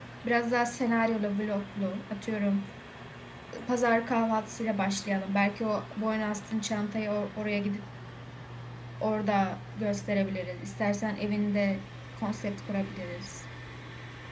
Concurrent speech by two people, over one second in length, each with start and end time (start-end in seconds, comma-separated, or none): none